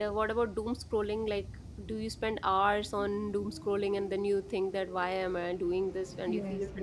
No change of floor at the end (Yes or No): No